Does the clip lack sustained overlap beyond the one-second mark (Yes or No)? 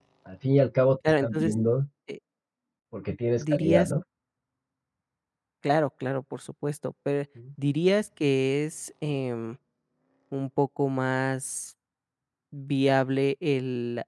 Yes